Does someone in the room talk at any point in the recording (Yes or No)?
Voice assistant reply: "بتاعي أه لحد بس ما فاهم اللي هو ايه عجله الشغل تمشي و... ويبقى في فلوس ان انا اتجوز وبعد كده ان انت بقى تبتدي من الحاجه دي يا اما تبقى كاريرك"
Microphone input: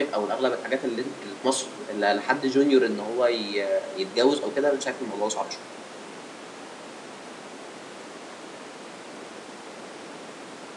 Yes